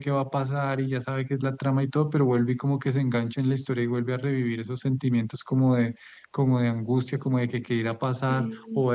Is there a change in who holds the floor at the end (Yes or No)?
No